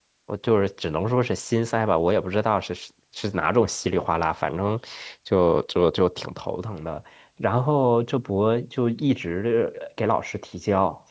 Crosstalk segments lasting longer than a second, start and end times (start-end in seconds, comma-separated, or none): none